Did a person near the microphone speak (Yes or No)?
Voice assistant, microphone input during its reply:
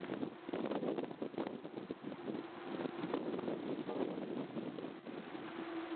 No